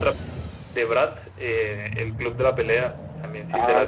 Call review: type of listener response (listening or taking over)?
taking over